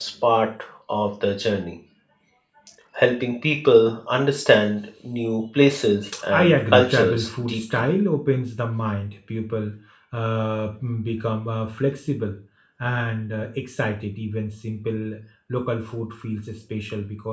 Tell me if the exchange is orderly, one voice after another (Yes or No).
No